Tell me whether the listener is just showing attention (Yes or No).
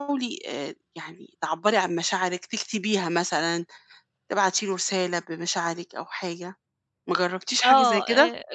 No